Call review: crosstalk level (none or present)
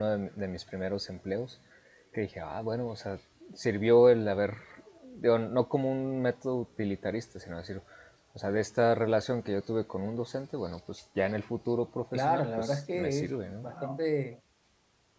present